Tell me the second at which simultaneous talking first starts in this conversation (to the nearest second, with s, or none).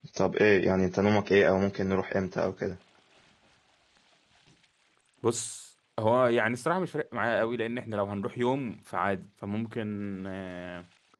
none